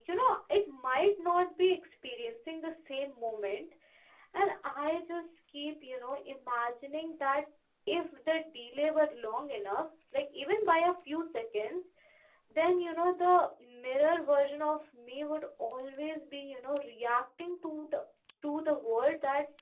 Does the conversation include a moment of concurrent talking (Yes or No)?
No